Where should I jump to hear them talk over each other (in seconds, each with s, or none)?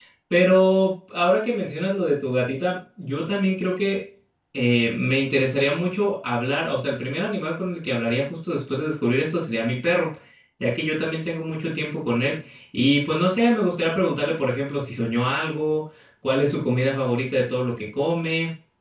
none